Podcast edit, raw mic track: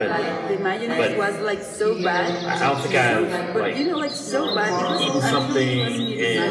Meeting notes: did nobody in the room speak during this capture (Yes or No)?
No